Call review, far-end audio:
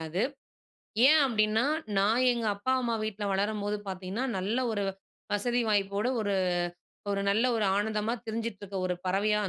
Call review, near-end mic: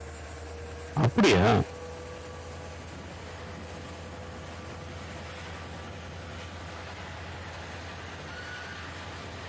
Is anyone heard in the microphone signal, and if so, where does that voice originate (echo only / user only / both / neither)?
user only